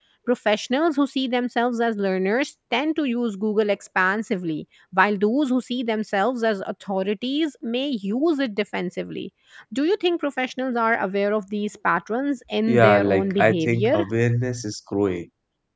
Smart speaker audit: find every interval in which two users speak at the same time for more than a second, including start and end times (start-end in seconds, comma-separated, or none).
12.7-14.0